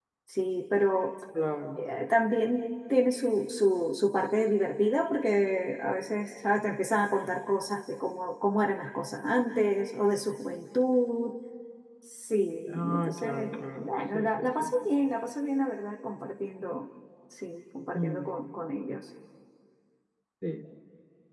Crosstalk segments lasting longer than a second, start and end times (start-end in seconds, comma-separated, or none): 12.7-14.6